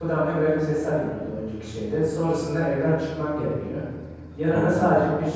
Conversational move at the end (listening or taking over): listening